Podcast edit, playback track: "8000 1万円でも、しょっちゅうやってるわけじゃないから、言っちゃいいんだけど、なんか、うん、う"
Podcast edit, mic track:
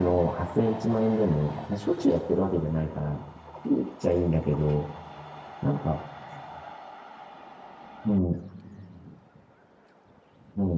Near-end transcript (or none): none